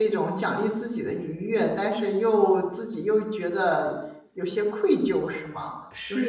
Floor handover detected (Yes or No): Yes